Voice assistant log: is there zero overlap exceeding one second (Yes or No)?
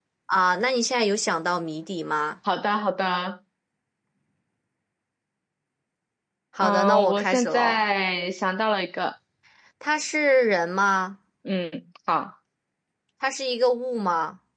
No